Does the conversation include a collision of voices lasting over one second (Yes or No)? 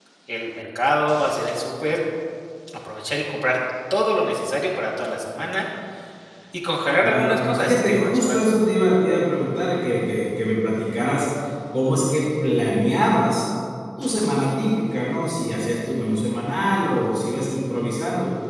Yes